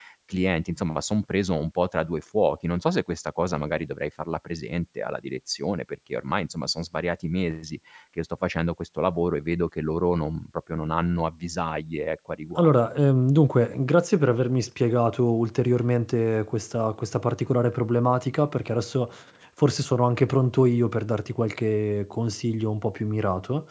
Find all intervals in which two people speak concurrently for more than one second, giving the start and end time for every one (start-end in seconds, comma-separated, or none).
none